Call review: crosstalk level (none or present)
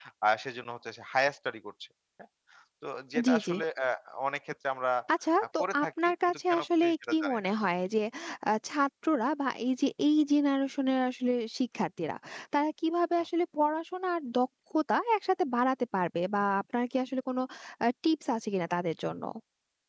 present